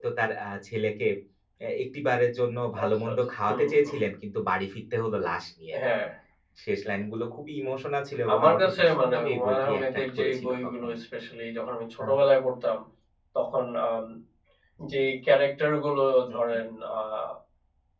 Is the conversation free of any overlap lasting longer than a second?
No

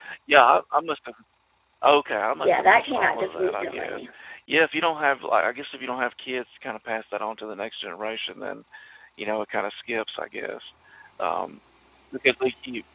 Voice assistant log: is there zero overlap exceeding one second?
No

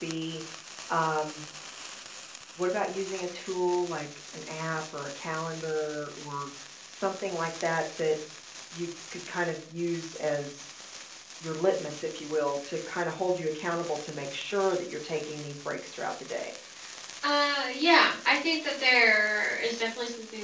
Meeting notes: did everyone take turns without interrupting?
Yes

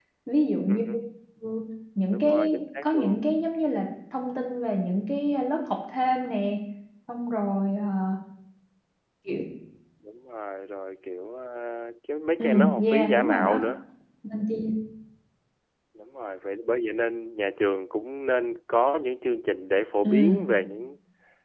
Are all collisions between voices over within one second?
No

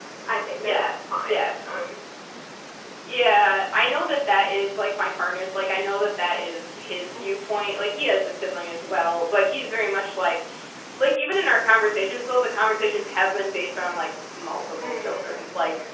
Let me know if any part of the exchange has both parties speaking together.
Yes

